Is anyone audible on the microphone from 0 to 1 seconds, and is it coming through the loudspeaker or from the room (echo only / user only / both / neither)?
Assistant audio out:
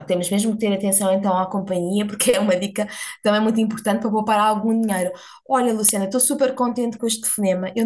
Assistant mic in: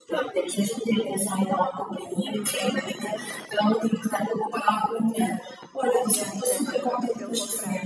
echo only